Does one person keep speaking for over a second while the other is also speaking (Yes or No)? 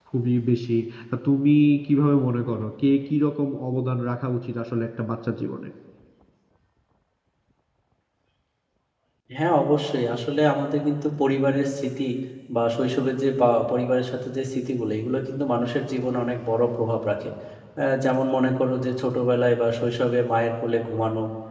No